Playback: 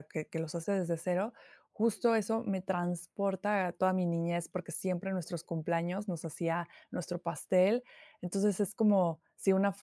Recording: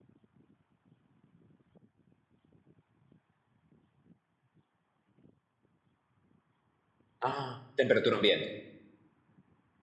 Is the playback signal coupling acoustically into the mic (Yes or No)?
No